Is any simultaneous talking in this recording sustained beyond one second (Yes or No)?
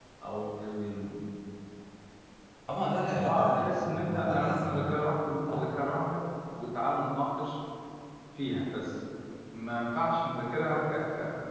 Yes